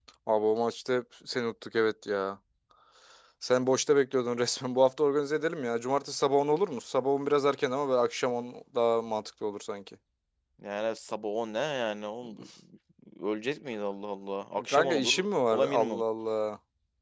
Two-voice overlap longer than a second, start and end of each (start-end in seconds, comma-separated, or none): 14.7-16.0